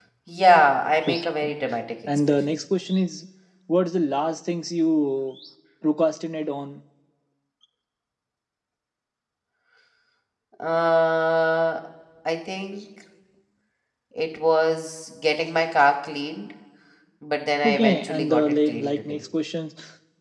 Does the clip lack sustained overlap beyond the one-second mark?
No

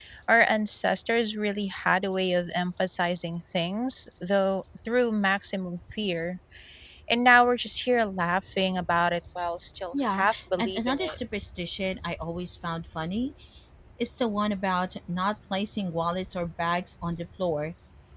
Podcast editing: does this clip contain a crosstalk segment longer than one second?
Yes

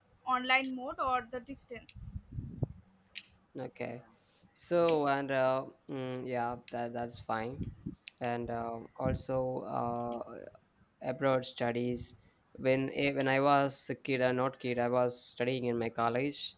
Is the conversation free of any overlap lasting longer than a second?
Yes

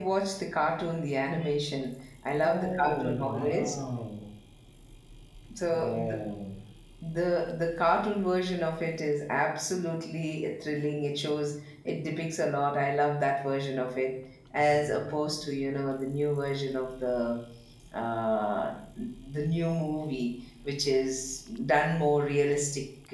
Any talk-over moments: Yes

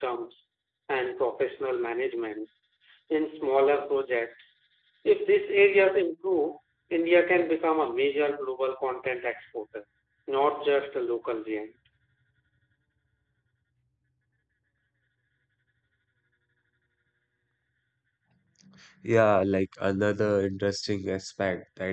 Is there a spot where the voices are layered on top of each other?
No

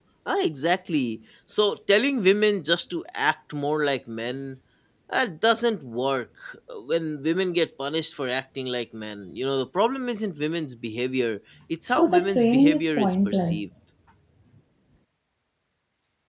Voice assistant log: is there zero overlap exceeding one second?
No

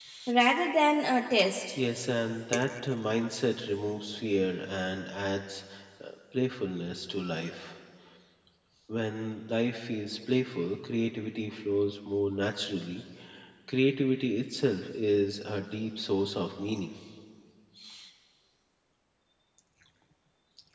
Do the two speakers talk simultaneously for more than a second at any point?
No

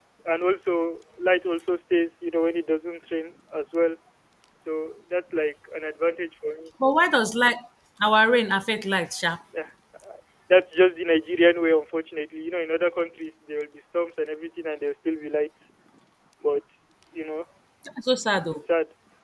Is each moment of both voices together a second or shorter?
Yes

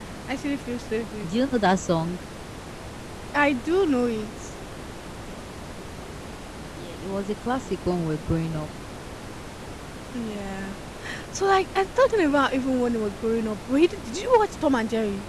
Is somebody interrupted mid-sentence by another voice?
No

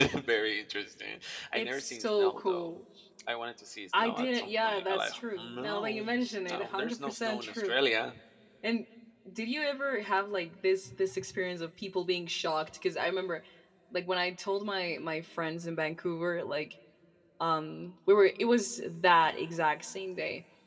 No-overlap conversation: No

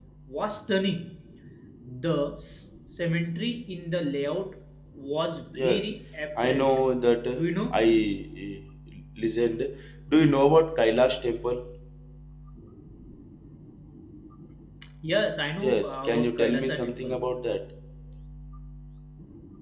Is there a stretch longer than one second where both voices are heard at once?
Yes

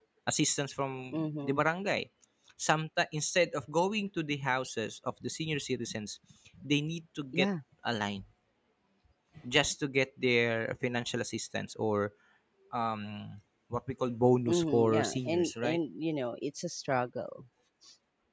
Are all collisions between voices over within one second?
No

